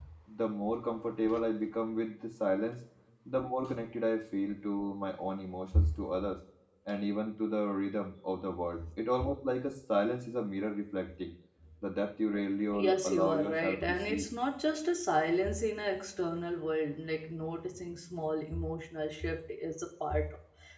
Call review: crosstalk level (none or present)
present